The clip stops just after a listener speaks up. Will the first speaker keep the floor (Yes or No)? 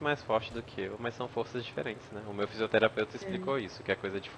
Yes